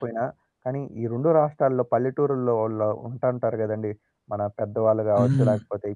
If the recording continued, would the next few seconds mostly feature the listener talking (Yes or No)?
No